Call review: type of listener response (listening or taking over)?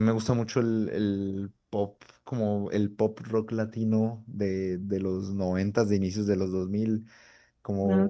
listening